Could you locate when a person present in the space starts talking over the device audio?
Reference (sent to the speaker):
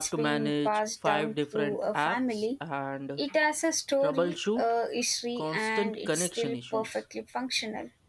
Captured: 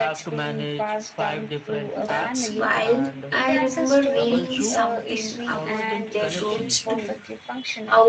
2.0 s

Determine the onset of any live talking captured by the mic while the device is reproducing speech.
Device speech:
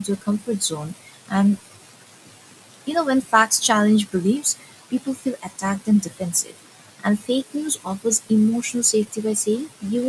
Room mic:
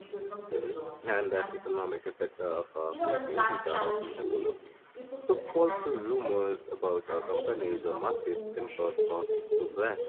0.5 s

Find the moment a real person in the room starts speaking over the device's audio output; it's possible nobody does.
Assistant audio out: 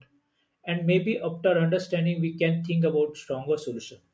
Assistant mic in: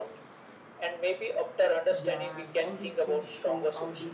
1.9 s

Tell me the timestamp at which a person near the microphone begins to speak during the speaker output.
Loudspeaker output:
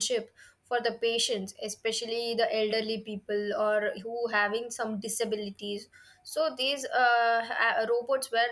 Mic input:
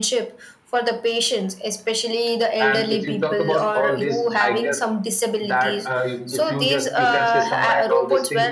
2.6 s

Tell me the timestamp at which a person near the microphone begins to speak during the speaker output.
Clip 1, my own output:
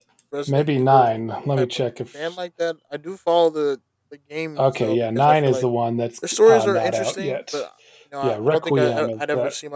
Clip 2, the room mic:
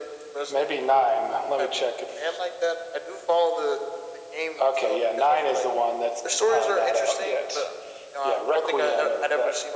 none

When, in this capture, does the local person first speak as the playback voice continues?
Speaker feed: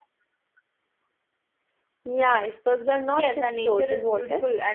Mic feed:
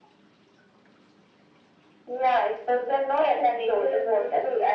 none

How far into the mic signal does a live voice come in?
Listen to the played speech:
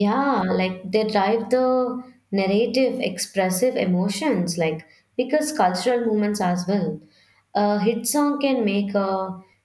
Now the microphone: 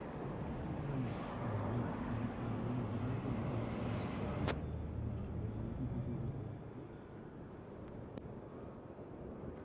none

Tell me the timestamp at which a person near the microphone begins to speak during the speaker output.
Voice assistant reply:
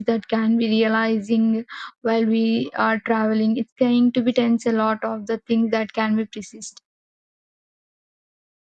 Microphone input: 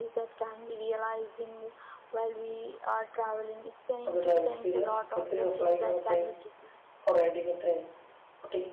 4.0 s

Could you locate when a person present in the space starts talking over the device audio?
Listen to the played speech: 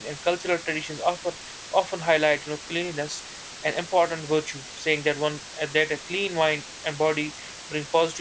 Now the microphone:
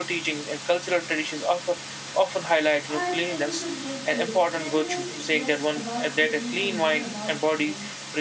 2.9 s

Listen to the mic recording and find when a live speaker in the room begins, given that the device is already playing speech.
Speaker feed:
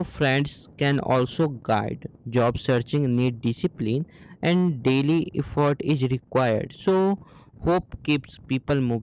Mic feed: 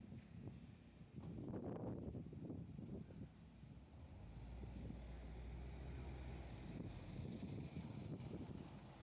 none

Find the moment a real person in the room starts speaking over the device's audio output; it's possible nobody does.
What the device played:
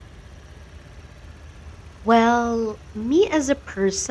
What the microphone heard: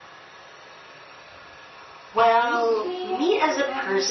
2.4 s

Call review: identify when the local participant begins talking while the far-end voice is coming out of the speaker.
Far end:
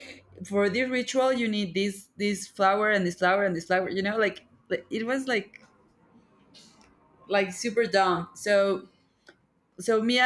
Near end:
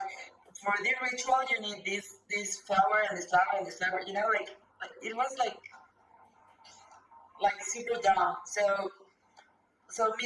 none

